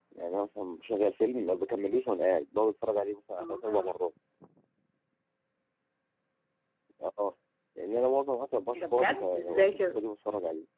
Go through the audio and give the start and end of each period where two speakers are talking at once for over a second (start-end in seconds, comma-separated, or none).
8.8-10.0